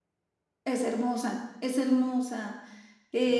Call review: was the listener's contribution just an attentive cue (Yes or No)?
Yes